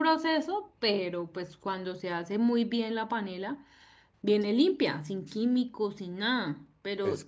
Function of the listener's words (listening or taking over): listening